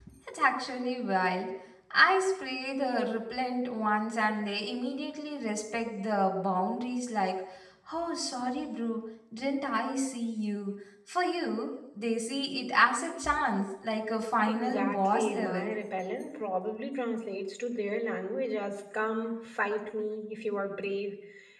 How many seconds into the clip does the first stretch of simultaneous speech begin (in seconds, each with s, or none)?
14.5 s